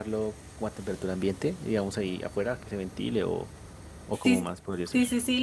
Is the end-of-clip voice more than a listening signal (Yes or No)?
Yes